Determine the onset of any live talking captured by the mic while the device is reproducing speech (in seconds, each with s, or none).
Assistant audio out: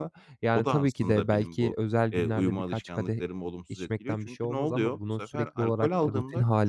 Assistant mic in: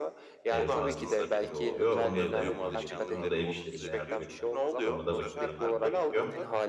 0.5 s